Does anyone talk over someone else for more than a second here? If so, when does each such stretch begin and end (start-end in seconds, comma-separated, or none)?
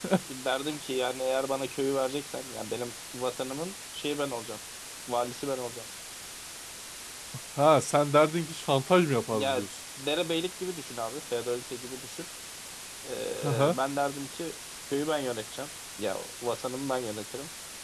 none